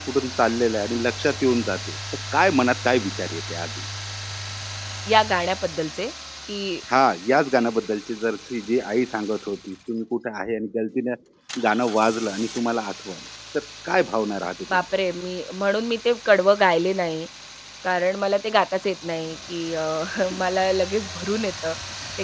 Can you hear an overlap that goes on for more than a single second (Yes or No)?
No